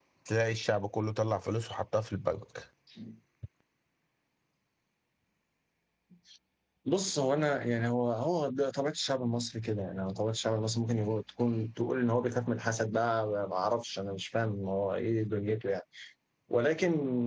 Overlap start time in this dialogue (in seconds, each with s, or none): none